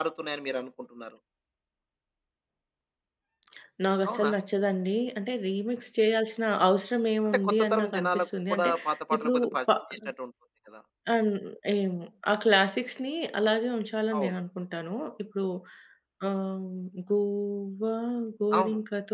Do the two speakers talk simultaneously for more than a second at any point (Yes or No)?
Yes